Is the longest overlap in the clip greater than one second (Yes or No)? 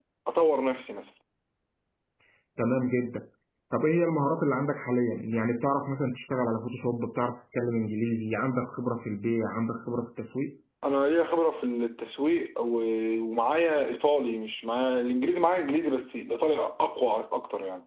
No